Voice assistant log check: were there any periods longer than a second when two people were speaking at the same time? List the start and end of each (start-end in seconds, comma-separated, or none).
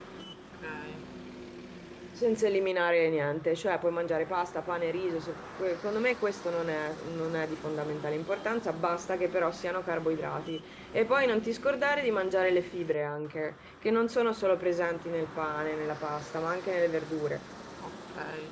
none